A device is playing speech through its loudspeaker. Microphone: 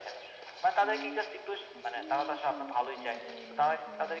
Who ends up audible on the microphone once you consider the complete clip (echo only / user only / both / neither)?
both